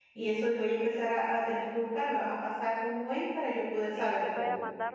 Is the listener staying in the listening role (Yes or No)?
No